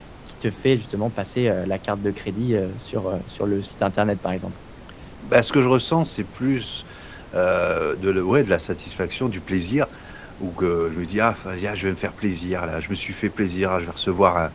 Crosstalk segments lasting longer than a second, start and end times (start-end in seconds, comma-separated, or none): none